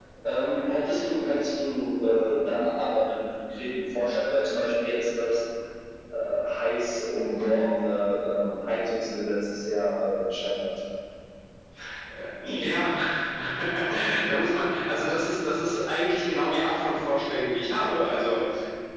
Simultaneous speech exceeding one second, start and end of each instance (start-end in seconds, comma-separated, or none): none